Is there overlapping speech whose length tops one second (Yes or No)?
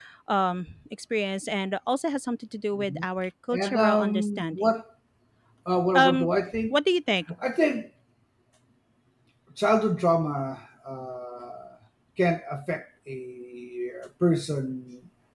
Yes